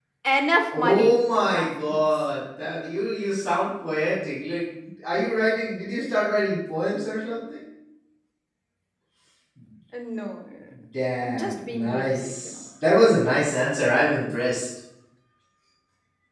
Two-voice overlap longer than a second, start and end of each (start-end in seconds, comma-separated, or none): 0.8-2.0, 11.2-12.6